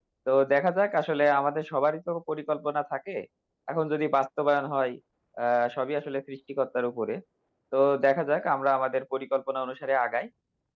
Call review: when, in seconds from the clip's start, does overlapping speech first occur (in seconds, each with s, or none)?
none